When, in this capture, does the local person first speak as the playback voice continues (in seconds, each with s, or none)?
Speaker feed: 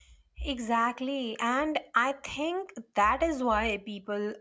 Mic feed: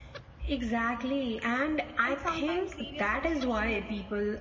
2.0 s